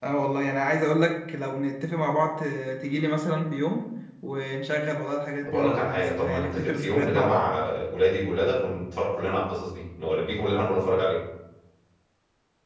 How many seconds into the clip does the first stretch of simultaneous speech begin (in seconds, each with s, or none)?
5.5 s